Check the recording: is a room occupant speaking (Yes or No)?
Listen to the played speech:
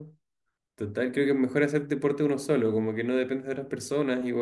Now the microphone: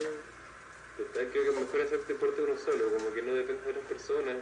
No